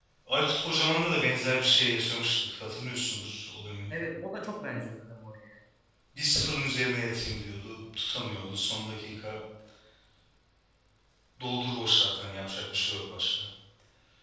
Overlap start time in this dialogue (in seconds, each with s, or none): none